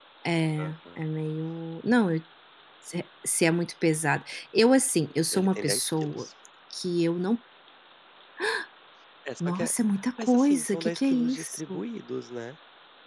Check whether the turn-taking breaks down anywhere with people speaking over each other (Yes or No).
Yes